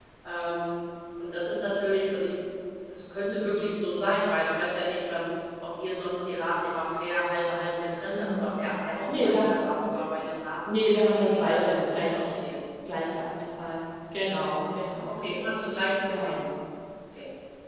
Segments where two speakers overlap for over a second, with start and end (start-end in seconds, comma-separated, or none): 11.2-12.4